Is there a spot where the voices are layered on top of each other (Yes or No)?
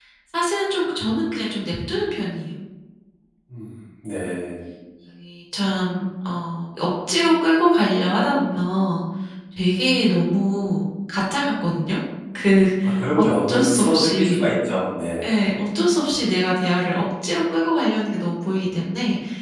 Yes